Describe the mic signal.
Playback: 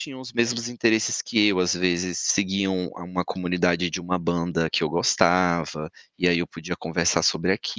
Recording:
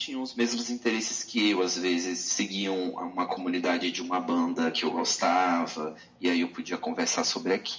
echo only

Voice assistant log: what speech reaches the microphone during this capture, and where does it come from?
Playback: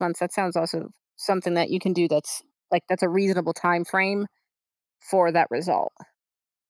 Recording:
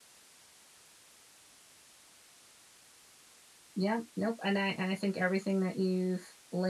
user only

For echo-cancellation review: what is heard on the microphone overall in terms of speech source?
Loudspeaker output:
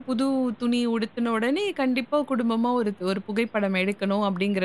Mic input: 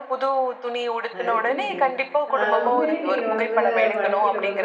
both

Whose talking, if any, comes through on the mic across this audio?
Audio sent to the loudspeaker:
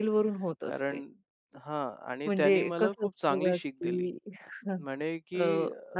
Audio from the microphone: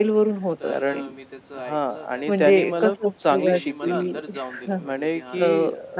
both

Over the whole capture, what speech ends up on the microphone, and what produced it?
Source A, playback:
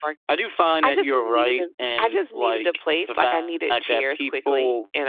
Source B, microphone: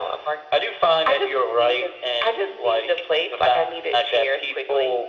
echo only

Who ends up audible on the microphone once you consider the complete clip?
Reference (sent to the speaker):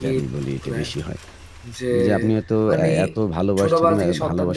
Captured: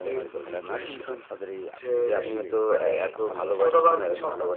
both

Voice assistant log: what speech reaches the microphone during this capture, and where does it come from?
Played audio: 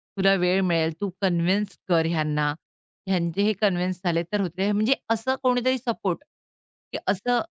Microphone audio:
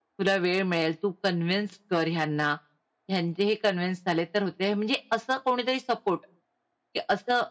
echo only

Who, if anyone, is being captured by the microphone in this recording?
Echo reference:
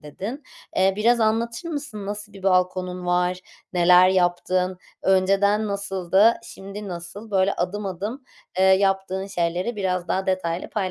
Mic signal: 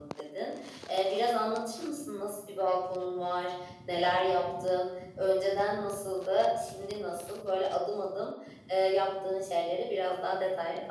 echo only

